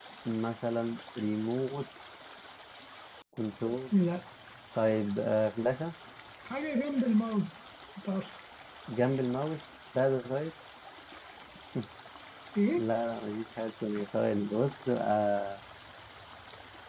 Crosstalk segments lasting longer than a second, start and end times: none

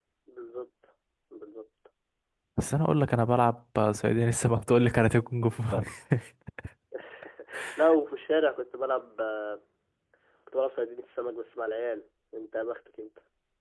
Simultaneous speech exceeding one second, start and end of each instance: none

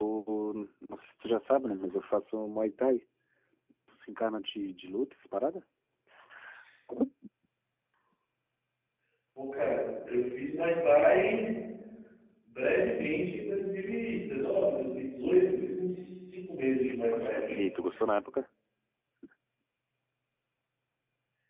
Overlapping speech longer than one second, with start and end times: none

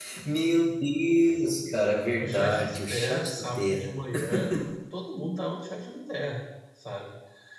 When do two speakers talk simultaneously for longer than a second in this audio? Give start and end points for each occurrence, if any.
2.2-3.9

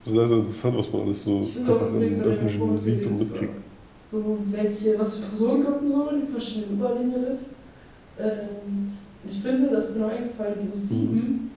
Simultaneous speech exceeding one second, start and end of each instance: 1.4-3.5

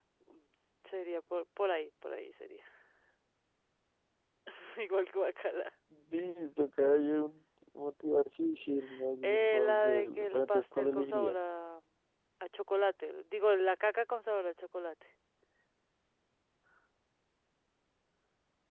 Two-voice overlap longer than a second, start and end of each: 9.2-11.4

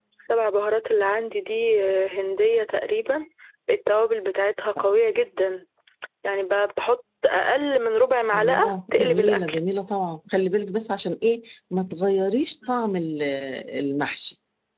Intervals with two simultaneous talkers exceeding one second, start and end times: 8.3-9.6

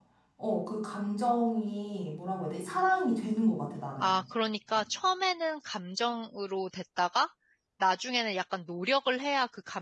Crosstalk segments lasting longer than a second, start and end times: none

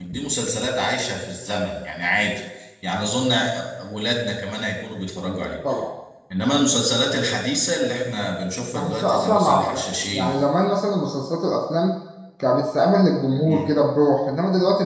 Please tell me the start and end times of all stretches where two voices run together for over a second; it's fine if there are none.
8.7-10.4

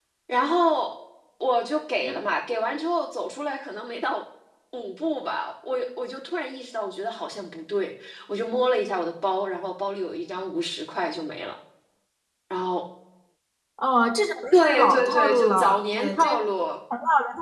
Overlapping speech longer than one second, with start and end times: 14.5-16.4

